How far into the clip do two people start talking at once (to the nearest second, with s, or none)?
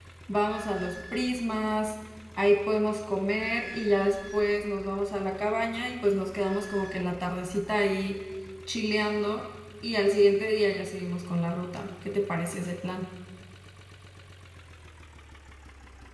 none